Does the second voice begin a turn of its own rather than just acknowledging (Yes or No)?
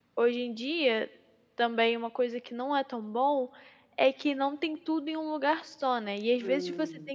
No